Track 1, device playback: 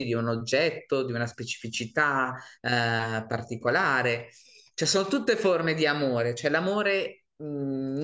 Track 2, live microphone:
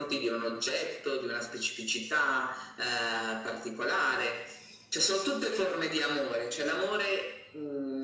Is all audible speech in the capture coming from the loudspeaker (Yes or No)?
Yes